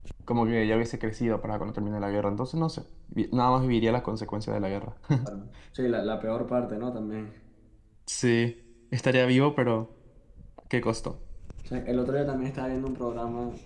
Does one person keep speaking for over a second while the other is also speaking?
No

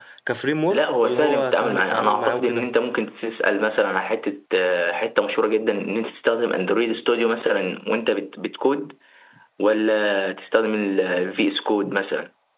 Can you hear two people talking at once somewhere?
Yes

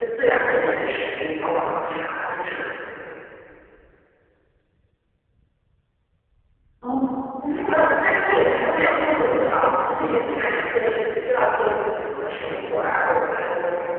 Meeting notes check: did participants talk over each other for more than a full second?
Yes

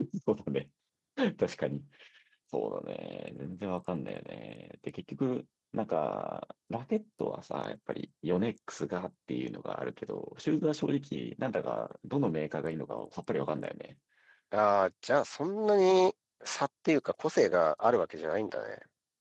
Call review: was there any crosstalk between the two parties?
No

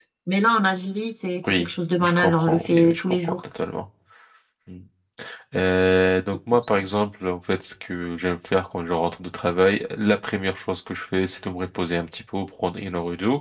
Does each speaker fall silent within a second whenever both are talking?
No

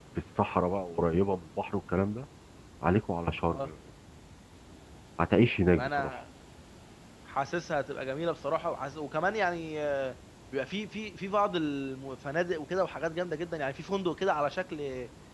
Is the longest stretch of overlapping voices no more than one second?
Yes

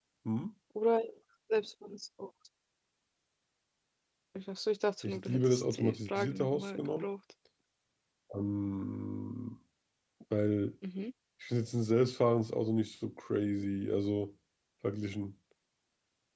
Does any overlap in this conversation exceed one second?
Yes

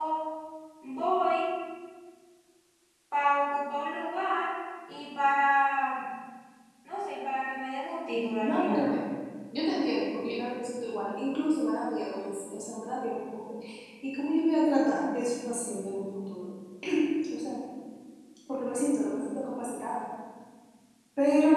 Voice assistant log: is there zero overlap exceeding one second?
Yes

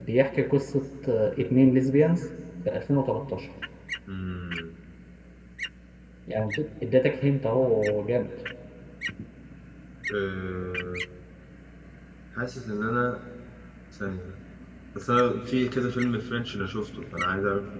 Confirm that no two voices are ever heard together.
Yes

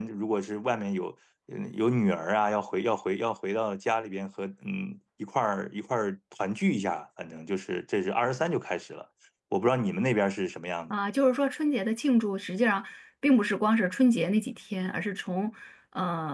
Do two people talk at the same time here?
No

